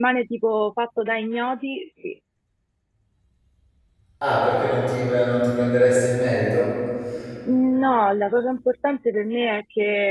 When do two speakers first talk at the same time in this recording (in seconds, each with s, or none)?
none